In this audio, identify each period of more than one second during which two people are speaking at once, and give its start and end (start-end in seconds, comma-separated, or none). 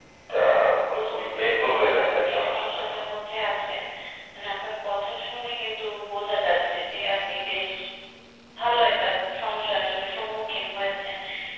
0.9-3.0